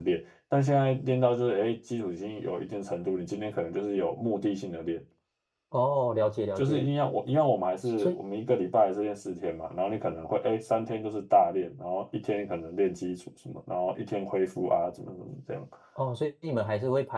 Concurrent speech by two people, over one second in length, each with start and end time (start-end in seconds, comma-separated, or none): none